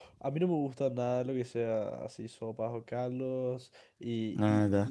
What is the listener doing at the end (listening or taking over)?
listening